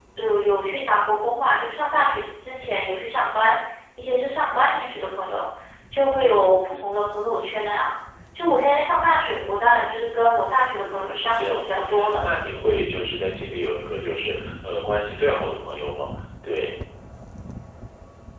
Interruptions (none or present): present